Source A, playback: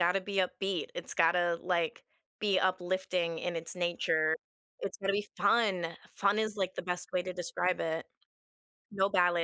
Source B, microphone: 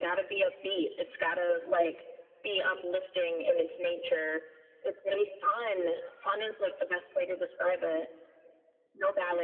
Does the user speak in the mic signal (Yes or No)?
No